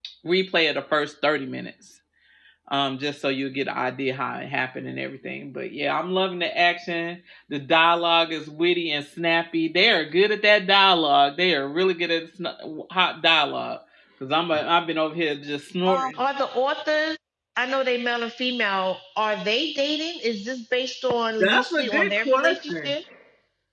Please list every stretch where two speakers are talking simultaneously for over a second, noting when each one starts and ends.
21.4-22.9

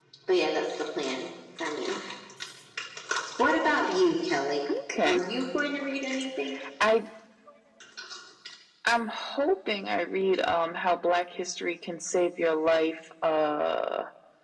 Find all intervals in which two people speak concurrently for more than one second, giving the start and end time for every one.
none

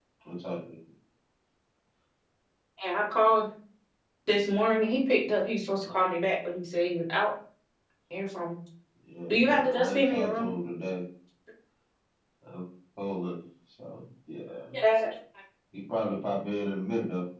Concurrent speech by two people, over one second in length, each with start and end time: 9.3-10.5

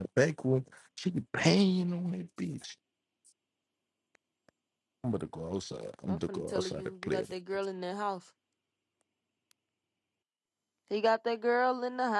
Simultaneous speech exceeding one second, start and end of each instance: 6.1-7.3

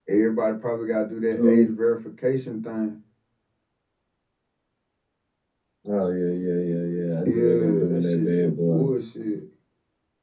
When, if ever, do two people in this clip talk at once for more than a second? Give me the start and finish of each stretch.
7.2-8.8

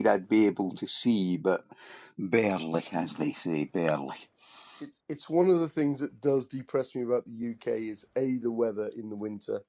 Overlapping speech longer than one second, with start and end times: none

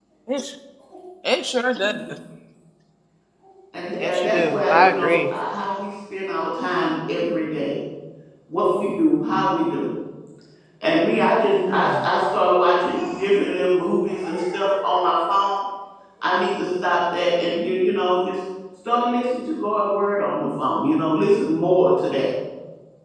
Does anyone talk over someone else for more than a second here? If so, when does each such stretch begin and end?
4.0-5.2

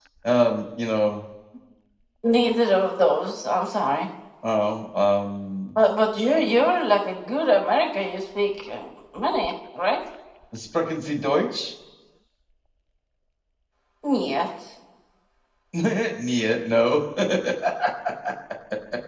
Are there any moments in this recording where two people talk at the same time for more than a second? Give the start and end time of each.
none

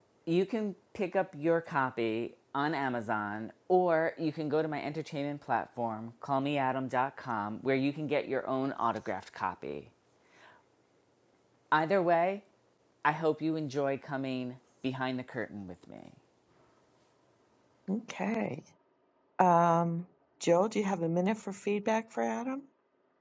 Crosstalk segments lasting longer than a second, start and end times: none

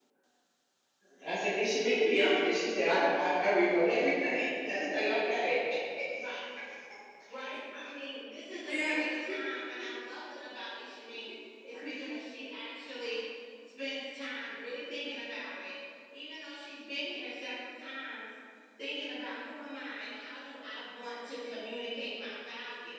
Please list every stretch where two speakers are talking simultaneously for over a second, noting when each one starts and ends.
none

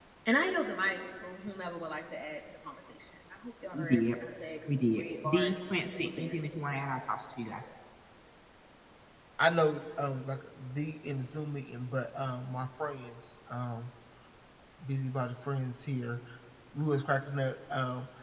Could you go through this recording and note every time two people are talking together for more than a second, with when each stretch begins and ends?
4.7-6.3

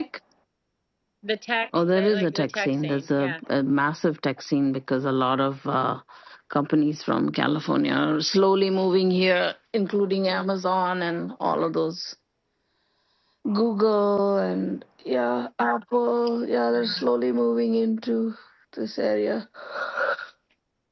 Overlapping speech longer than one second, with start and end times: 2.0-3.3

